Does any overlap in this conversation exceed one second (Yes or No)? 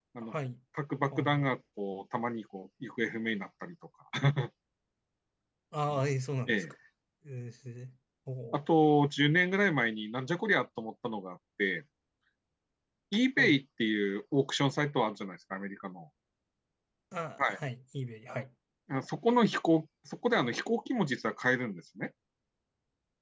No